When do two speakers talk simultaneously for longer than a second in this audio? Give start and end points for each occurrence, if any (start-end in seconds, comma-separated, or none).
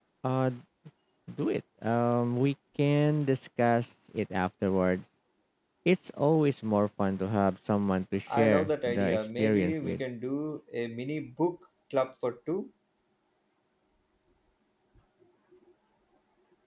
8.3-10.0